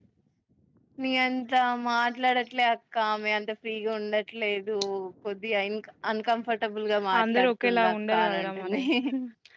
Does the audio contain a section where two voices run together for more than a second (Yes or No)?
Yes